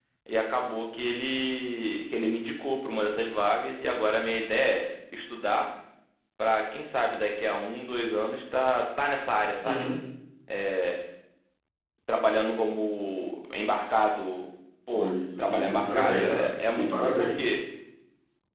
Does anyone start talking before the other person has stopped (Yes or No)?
Yes